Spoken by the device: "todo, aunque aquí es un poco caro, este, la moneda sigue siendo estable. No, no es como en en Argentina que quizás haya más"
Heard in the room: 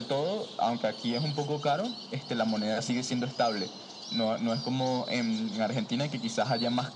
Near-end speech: none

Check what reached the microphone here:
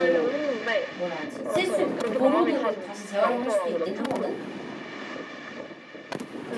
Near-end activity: present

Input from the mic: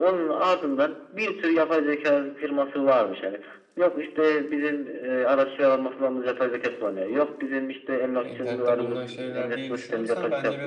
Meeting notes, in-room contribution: present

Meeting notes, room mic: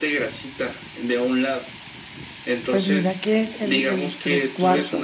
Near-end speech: present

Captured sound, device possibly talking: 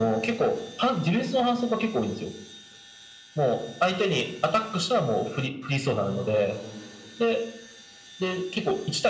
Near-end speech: present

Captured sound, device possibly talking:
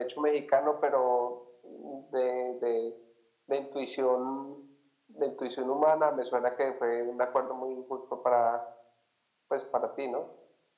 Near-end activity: none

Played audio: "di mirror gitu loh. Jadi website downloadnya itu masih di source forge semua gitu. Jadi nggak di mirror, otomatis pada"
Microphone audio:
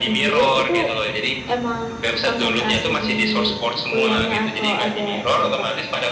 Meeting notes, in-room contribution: present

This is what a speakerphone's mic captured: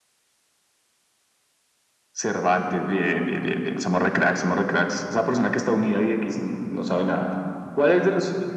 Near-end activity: none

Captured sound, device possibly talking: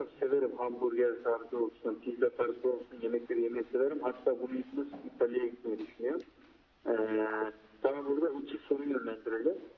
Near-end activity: none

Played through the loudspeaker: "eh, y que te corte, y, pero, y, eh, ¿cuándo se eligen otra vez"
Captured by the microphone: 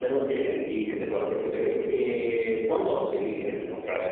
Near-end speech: none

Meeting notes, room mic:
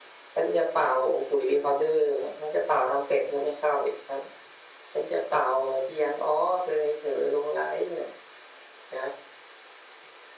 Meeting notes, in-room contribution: none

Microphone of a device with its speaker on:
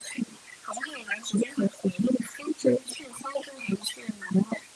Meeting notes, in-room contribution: none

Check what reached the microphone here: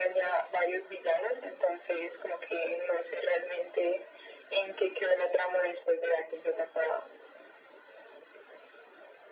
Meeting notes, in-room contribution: none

